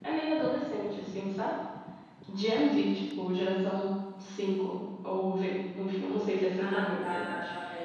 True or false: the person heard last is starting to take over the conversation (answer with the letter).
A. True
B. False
A